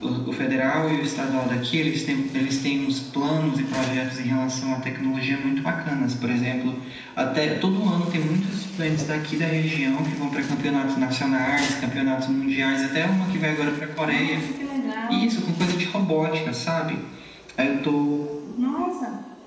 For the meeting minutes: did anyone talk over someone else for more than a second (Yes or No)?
No